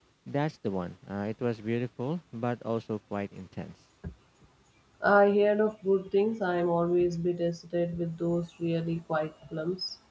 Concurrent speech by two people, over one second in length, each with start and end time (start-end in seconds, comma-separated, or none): none